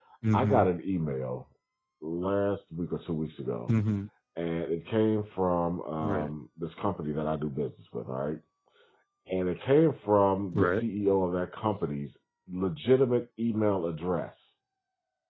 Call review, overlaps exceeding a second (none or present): none